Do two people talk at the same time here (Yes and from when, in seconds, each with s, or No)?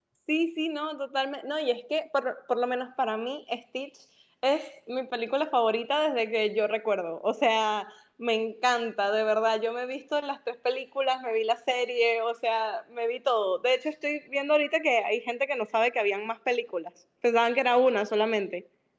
No